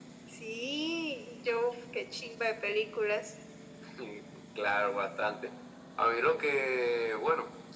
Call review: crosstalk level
none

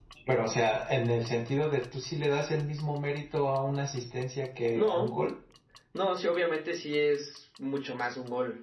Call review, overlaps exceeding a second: none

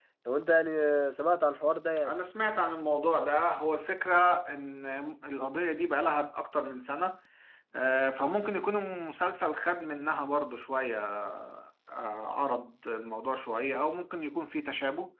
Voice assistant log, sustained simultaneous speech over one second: none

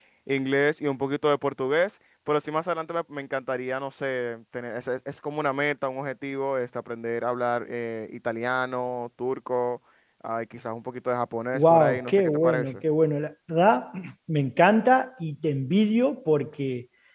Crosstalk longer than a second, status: present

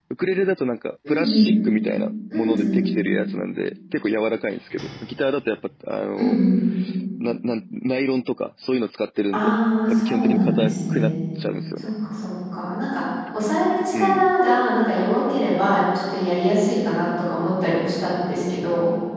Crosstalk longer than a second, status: present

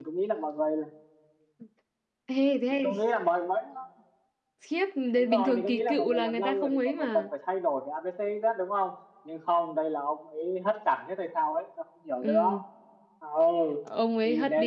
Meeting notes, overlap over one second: present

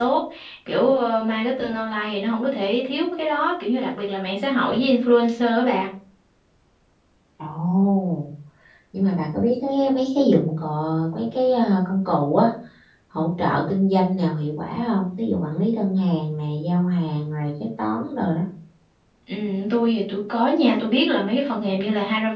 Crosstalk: none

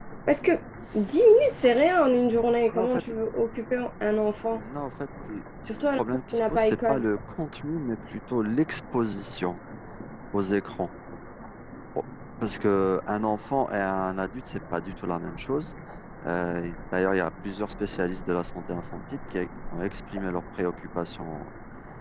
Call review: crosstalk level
present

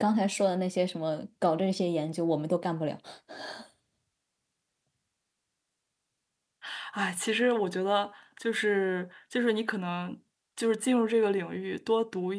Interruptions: none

